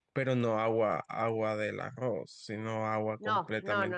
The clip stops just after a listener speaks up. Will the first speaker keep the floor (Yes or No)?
No